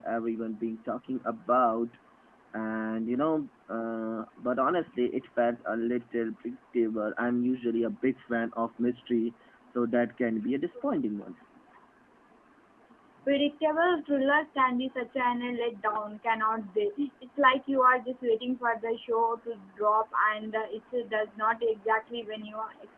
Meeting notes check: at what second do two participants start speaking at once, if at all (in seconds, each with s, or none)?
none